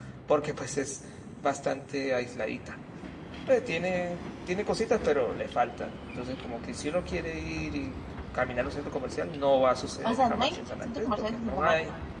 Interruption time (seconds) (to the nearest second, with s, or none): 10 s